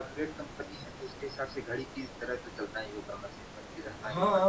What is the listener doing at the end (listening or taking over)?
taking over